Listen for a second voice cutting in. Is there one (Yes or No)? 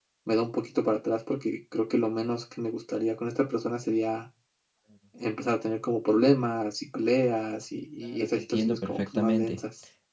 Yes